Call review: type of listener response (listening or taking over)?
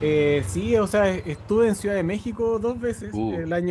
listening